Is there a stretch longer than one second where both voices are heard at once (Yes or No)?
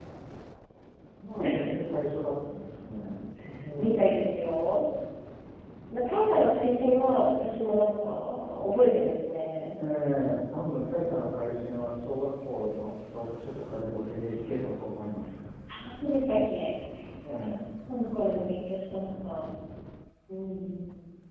No